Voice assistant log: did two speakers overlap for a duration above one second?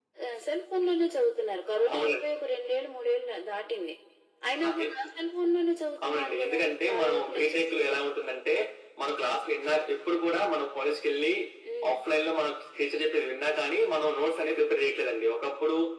Yes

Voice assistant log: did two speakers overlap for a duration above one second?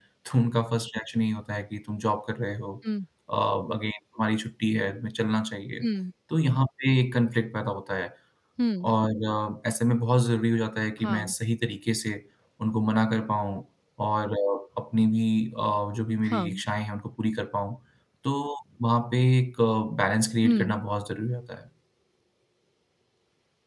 No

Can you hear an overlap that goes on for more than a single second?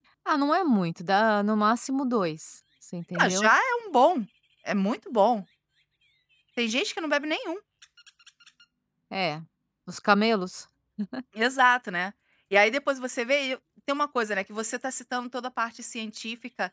No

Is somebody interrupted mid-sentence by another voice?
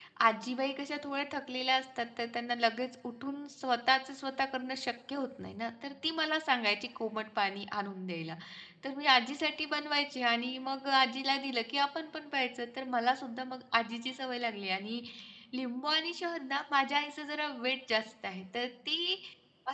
No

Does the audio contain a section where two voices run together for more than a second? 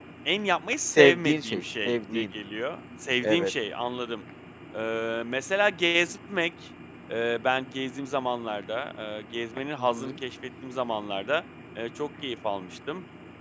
Yes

